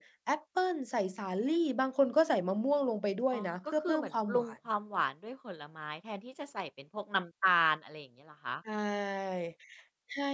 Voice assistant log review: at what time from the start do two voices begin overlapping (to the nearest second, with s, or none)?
3 s